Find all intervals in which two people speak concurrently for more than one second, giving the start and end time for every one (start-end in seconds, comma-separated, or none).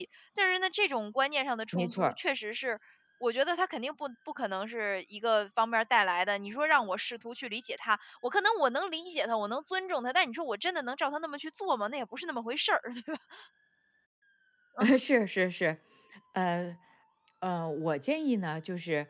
none